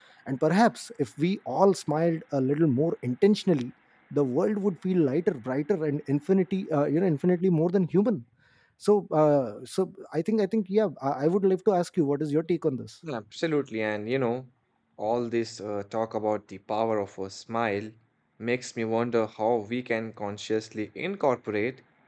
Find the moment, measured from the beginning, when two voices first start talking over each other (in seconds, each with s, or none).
none